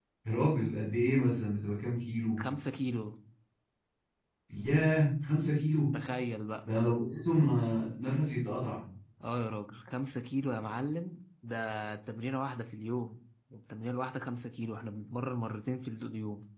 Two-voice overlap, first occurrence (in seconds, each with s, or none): none